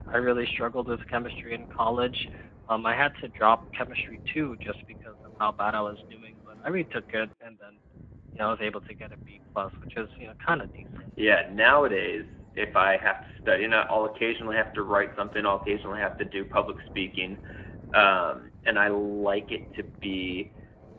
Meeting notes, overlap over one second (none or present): none